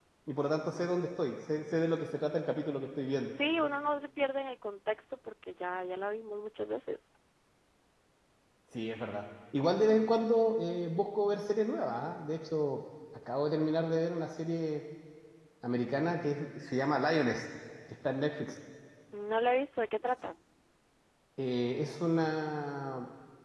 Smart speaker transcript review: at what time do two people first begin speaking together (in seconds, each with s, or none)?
none